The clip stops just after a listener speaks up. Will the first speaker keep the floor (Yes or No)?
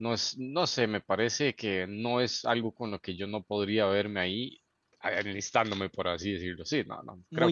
Yes